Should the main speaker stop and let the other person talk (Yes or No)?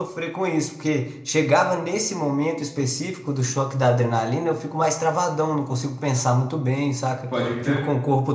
No